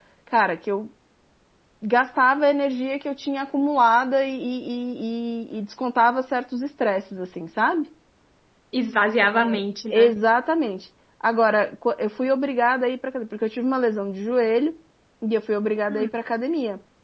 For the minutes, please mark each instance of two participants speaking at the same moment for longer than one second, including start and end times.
none

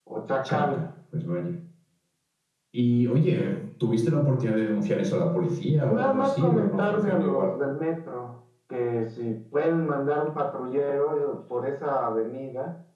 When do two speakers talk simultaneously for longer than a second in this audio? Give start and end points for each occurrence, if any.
5.8-7.5

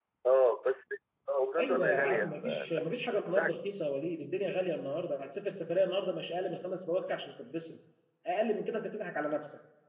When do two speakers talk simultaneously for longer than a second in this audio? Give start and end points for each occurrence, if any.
1.6-2.8

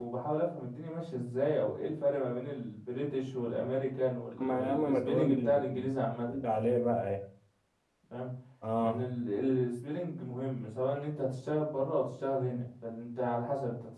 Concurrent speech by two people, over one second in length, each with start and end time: 4.4-5.9

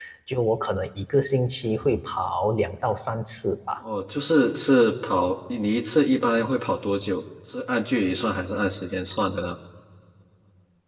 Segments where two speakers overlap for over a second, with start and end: none

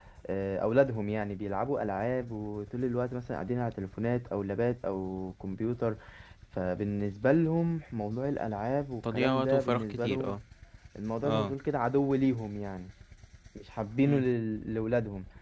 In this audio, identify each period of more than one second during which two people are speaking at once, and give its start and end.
9.1-10.4

